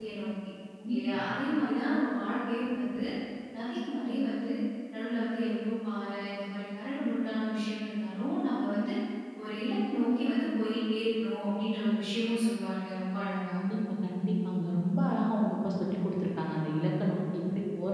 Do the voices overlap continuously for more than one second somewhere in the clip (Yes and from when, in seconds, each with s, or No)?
No